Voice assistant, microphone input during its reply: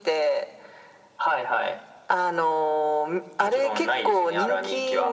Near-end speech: none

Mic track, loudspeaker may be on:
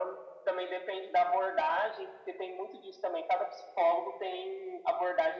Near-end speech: none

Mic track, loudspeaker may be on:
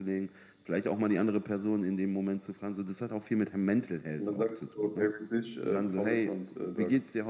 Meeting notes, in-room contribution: none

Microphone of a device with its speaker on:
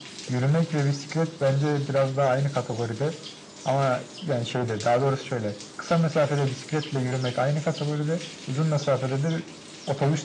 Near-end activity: none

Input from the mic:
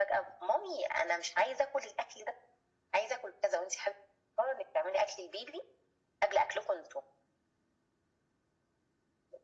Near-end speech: none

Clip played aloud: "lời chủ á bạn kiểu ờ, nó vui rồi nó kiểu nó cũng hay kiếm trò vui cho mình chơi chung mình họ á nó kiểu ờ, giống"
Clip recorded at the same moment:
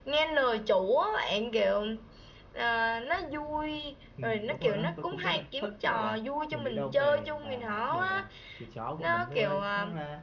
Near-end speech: present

